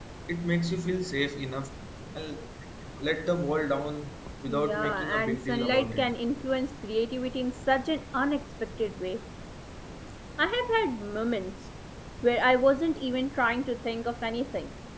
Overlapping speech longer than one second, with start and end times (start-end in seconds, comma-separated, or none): 4.5-6.1